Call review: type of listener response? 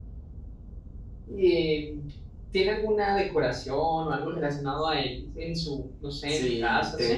taking over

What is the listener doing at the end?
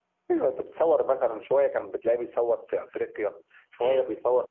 listening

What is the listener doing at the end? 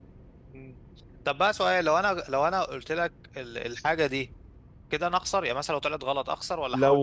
taking over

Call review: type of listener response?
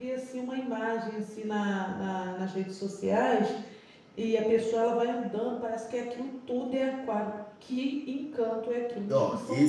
taking over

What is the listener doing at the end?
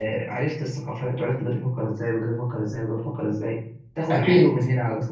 listening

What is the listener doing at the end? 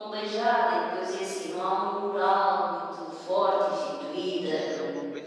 taking over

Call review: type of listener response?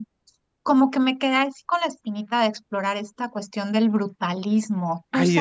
taking over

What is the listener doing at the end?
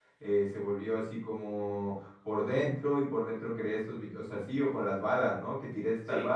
listening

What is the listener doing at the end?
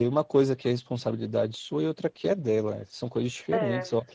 listening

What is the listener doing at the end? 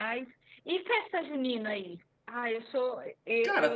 listening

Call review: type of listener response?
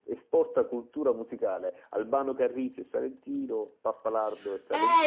taking over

